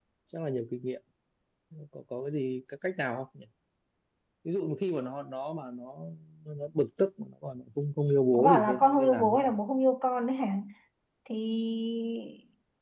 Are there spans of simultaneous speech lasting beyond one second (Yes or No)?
Yes